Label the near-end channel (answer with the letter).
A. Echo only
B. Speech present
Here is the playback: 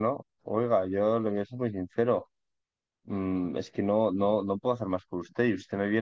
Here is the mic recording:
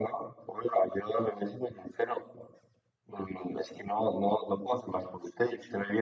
A